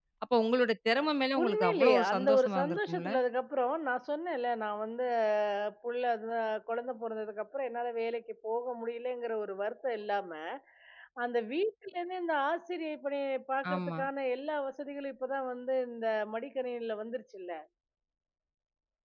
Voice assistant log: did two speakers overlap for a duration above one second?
Yes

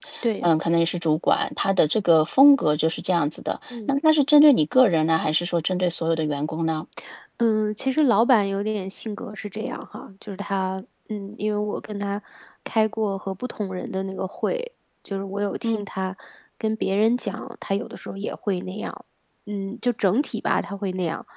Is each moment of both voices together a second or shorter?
Yes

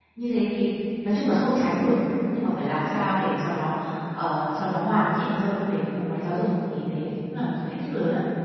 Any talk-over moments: No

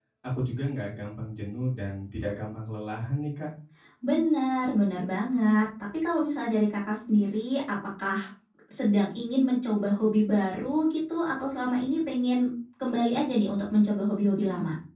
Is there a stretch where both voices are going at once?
No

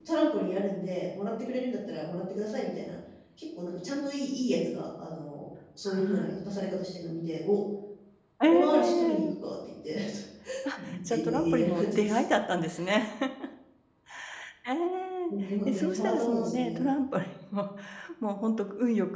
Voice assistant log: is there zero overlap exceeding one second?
No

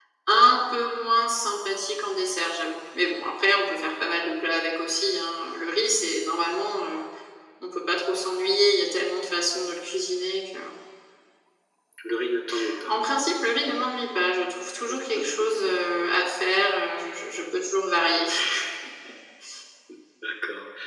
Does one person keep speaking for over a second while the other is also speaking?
No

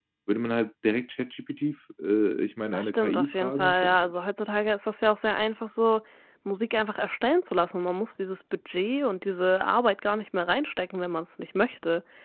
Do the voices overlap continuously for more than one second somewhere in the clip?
Yes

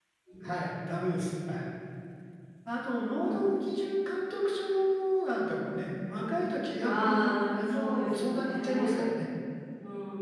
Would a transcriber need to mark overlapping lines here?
Yes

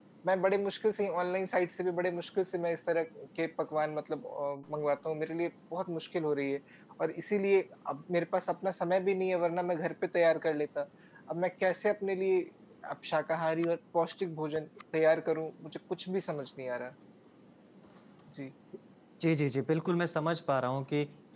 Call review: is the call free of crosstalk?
Yes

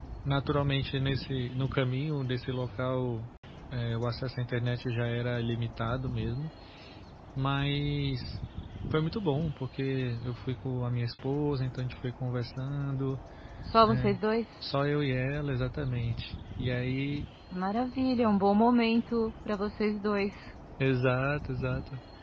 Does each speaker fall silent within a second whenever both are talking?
Yes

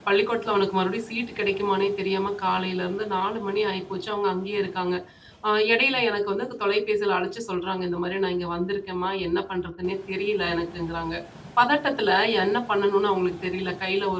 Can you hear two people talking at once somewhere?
No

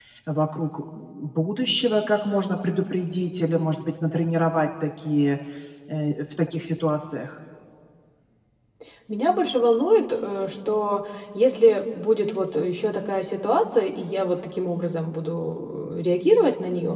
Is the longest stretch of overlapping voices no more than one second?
Yes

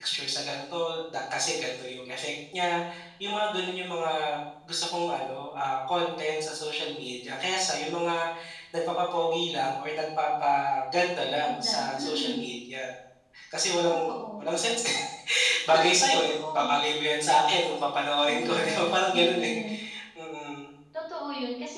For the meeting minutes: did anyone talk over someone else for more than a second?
Yes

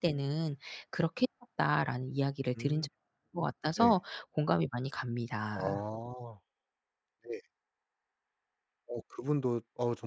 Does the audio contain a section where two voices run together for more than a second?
No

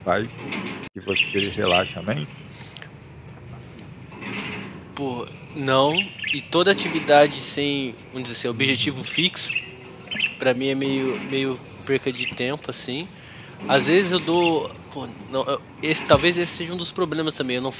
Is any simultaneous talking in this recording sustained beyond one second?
No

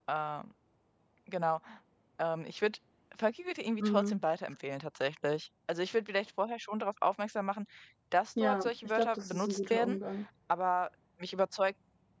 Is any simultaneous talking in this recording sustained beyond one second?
Yes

